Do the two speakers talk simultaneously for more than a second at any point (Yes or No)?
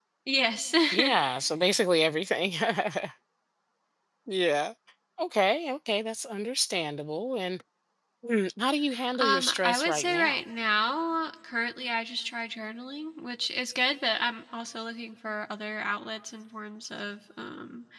Yes